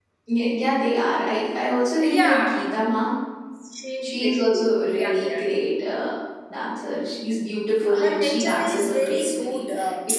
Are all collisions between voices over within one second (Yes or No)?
No